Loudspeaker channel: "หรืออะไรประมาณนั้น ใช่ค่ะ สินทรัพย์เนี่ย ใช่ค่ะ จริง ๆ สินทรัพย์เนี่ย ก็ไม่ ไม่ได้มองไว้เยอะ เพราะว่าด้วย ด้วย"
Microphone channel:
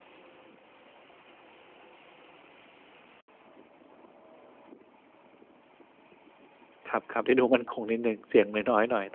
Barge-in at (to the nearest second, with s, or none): 7 s